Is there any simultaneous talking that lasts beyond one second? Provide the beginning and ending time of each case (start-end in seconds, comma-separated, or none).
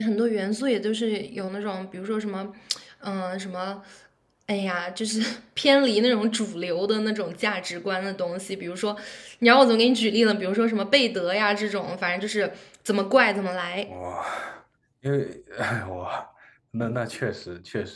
none